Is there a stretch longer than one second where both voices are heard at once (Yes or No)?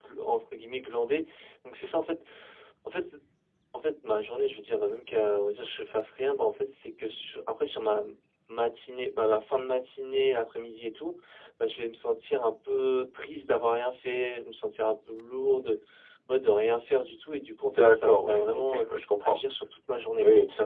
Yes